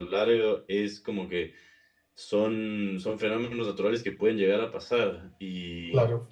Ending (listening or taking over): listening